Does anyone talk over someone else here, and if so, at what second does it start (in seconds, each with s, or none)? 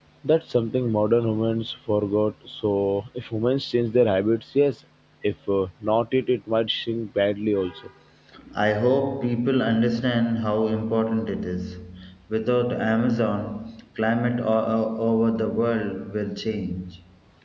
none